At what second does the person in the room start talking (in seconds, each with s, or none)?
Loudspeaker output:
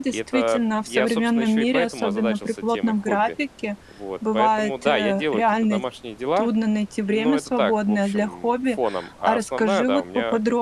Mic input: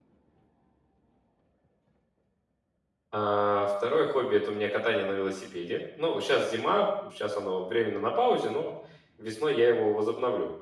3.1 s